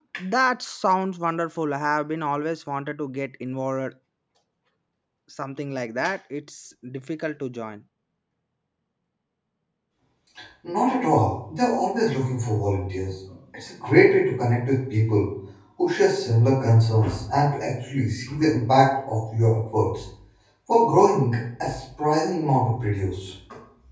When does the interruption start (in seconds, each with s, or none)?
none